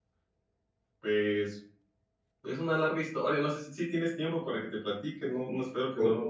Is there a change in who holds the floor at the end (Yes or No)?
Yes